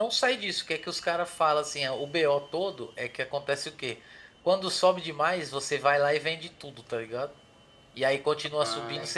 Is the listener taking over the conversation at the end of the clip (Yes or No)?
No